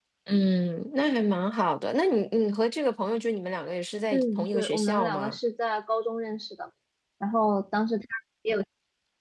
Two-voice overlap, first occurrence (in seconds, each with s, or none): 4.1 s